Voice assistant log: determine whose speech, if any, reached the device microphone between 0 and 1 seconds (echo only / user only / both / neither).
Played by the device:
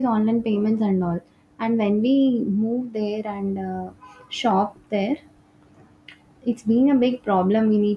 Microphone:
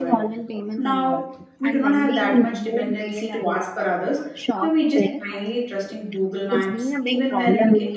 both